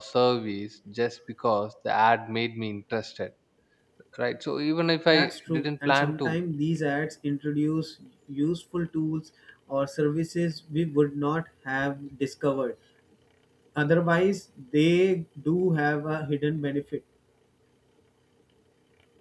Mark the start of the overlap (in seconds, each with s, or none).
5.1 s